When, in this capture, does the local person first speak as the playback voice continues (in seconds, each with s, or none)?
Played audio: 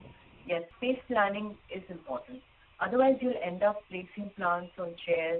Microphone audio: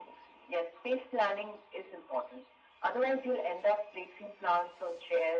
none